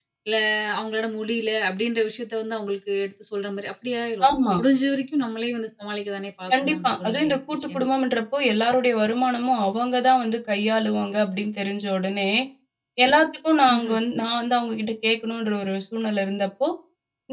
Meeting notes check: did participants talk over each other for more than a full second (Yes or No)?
Yes